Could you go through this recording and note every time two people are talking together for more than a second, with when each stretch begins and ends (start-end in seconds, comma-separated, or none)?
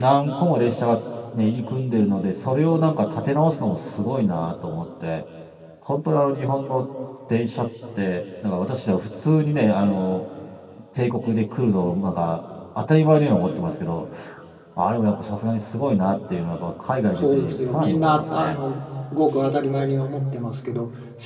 17.2-18.6